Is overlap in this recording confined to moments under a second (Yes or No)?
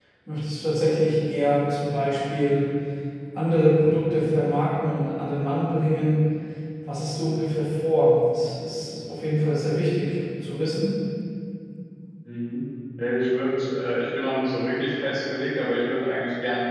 Yes